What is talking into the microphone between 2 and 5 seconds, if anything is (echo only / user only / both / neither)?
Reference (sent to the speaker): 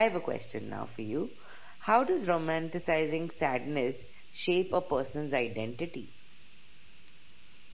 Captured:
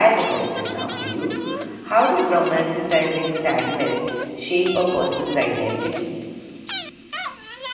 echo only